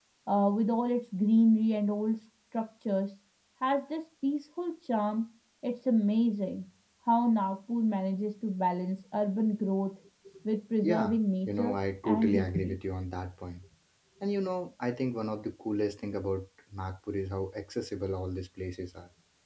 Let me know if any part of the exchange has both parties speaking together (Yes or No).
Yes